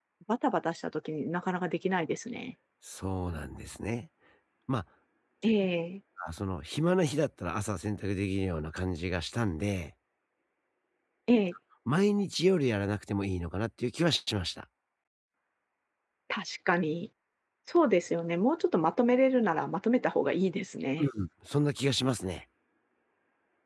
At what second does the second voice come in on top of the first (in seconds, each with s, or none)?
none